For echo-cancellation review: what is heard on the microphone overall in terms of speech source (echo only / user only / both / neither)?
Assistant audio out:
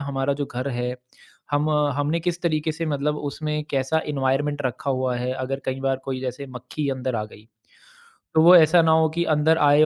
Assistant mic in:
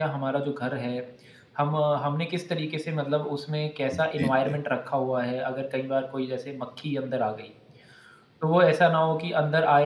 both